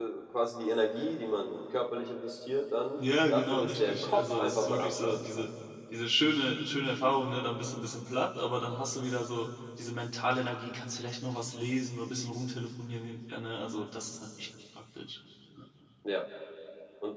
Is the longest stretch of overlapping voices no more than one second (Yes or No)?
No